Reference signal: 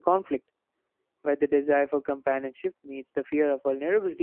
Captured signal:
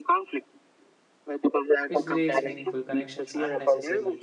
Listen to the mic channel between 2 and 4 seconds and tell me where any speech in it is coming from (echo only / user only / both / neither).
both